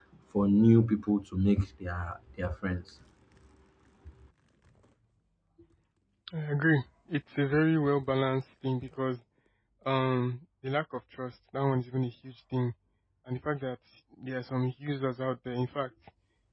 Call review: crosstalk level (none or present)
none